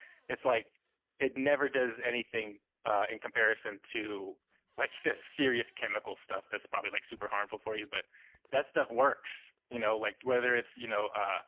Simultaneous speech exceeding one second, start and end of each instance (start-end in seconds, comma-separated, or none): none